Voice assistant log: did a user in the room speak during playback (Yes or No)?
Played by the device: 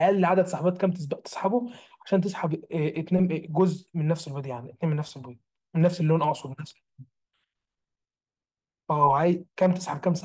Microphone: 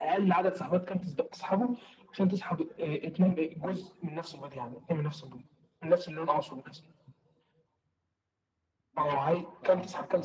Yes